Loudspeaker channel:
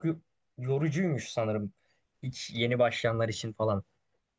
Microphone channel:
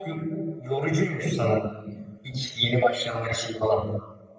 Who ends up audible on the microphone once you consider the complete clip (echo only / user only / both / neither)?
echo only